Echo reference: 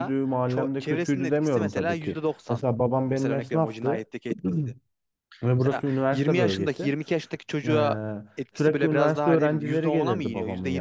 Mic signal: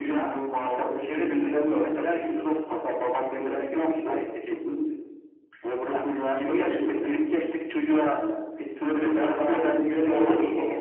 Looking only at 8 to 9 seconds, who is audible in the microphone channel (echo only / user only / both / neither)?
echo only